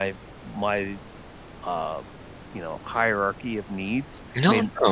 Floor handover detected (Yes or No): Yes